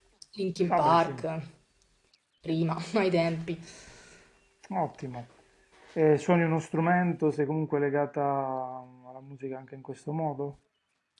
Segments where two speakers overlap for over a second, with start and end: none

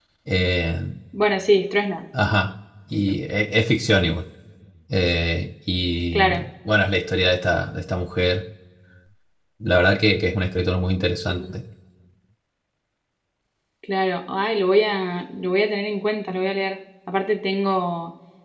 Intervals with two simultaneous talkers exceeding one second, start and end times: none

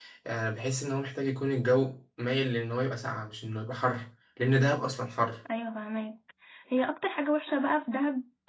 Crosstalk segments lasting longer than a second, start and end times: none

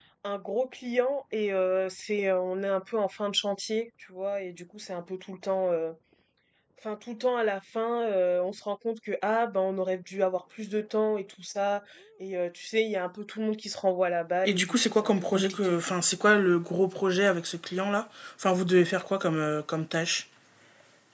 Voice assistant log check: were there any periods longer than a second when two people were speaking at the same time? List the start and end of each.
14.4-15.8

